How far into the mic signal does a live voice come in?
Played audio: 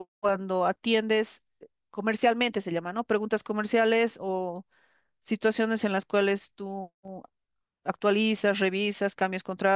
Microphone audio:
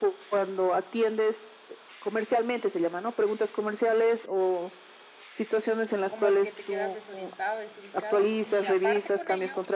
6 s

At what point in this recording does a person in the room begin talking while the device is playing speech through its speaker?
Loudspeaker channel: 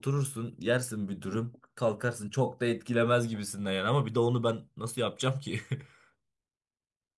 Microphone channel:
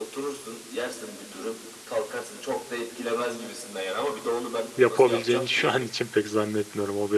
5 s

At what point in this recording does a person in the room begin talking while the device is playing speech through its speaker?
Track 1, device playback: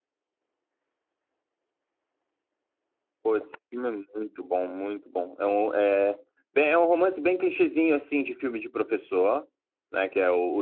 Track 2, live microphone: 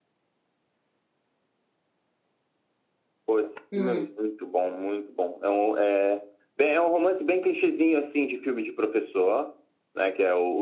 4 s

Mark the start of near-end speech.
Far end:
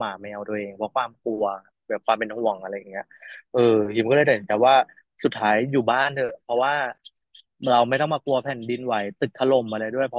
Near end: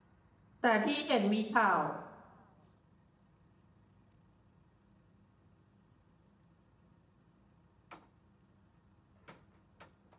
1 s

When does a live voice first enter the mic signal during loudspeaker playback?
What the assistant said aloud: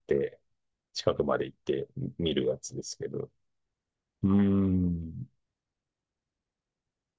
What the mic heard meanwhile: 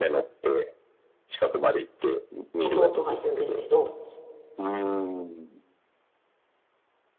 3 s

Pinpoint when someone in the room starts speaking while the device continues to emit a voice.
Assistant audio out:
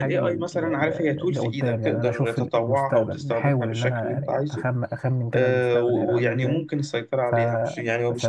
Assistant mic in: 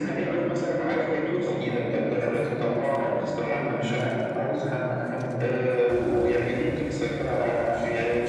none

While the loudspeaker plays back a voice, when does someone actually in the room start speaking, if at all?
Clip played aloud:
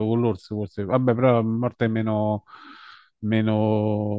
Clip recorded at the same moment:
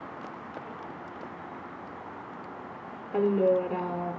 3 s

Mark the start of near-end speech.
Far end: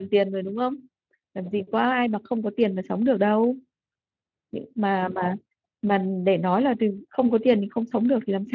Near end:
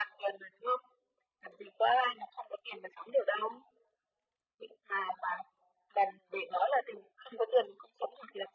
none

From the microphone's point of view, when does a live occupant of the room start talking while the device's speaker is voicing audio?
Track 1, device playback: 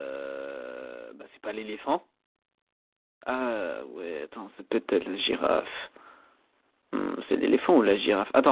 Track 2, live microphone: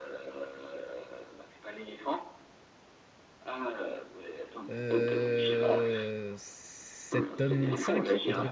5 s

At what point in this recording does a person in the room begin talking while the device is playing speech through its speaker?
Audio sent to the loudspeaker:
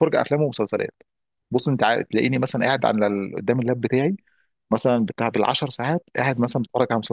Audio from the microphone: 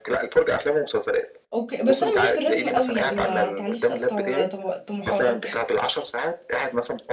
2 s

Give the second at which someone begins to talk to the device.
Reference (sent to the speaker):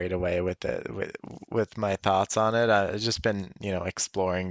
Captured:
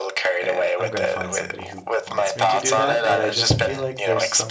0 s

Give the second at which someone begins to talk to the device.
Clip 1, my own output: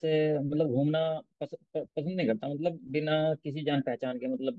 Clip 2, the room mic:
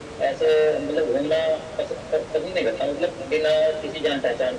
none

